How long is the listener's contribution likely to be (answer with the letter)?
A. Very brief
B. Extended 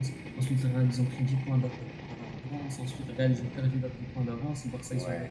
A